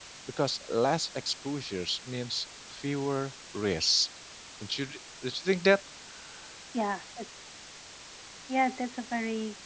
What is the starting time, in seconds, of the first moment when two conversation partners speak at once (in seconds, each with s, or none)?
none